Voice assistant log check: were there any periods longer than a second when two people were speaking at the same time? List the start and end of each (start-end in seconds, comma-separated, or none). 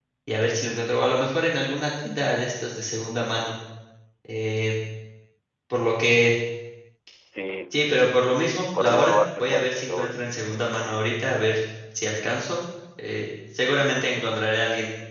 8.8-10.2